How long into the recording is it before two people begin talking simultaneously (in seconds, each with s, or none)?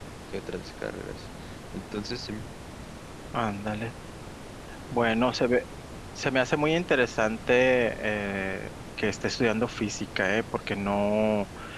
none